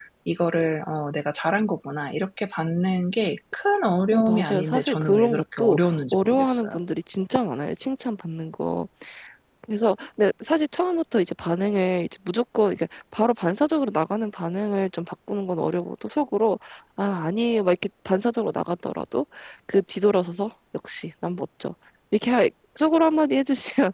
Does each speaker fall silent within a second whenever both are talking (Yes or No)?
No